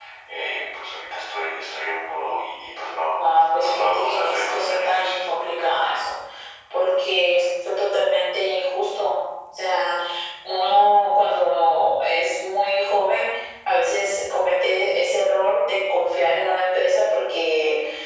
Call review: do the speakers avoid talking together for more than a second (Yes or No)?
No